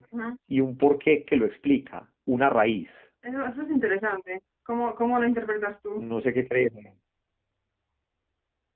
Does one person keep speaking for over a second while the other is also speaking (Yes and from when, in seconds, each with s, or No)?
No